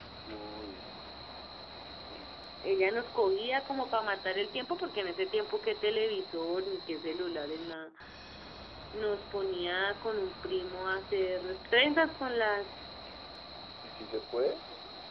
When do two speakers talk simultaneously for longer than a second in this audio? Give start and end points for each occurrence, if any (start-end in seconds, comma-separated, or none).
none